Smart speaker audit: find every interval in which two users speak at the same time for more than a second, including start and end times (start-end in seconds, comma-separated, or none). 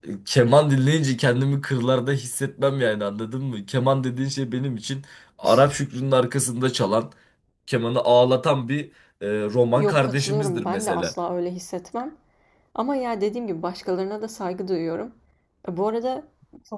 9.8-11.1